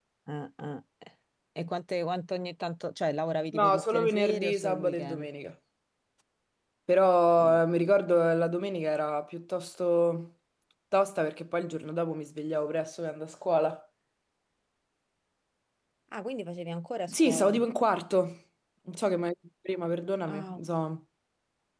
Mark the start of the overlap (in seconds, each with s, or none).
3.5 s